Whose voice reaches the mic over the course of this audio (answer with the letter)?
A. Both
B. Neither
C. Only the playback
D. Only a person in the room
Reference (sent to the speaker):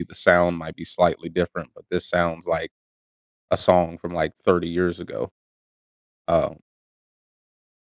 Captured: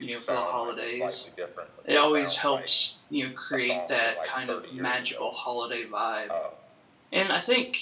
A